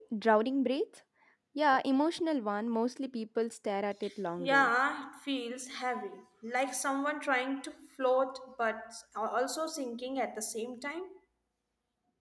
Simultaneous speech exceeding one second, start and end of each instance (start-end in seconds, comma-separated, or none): none